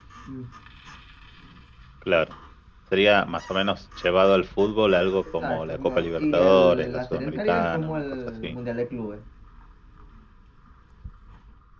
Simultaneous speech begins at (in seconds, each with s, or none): 5.3 s